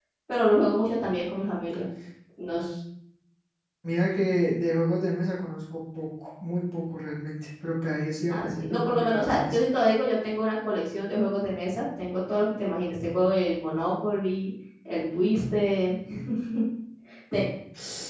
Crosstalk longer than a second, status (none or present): present